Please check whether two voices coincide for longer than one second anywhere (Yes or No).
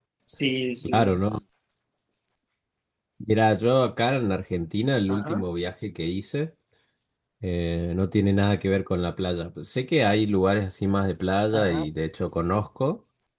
No